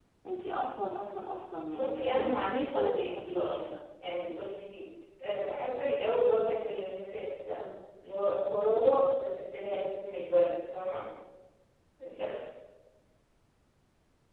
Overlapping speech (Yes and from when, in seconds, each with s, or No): Yes, from 1.7 s